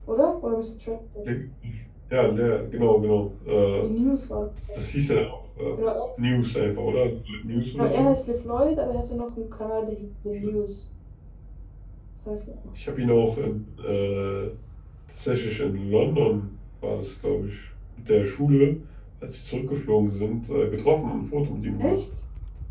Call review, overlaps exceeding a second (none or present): none